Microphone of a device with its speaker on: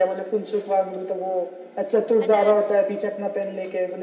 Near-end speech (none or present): present